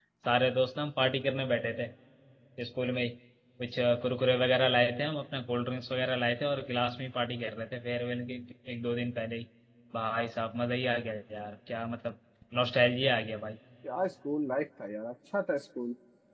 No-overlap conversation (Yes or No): Yes